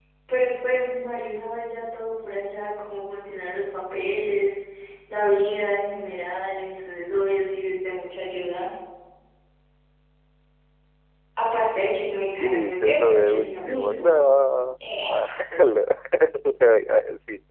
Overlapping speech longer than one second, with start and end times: 12.4-14.1

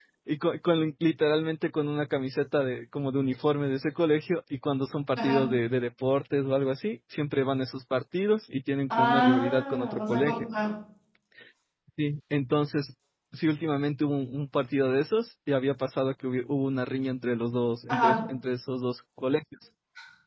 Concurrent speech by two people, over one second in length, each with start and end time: 8.9-10.5

